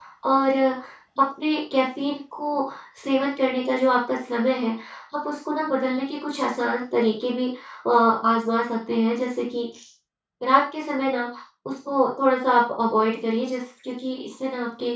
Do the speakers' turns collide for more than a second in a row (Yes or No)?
No